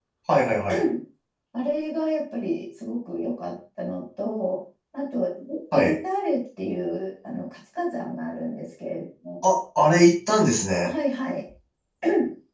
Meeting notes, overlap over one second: none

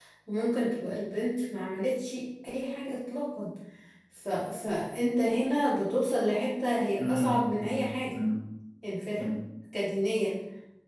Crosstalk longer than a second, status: present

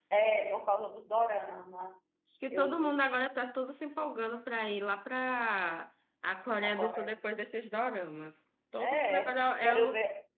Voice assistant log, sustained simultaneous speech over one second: present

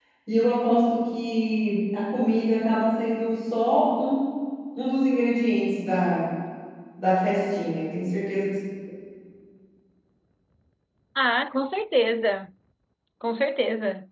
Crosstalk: none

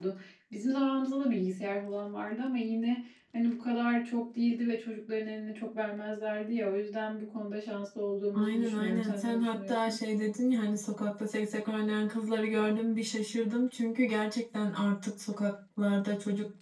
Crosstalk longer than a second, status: present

